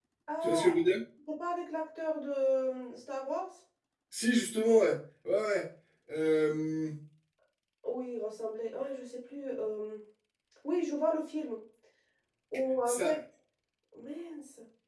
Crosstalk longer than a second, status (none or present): none